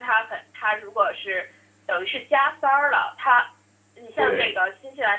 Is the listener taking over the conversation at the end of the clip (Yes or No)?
No